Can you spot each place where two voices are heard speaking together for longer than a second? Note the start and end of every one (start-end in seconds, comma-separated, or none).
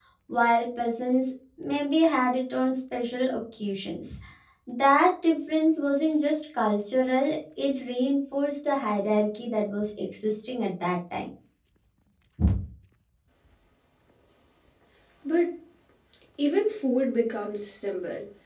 none